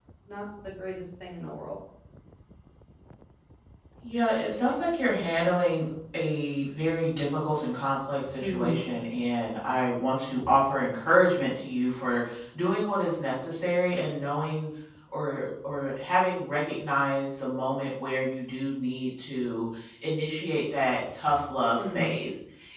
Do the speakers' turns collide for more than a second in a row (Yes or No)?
No